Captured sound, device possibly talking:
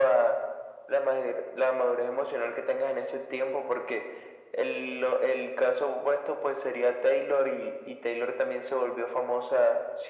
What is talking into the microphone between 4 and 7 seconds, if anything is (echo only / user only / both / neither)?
echo only